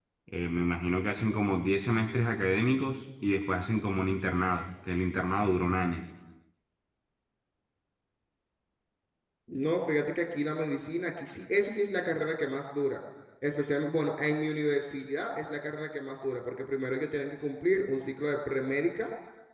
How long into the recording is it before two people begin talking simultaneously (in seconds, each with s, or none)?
none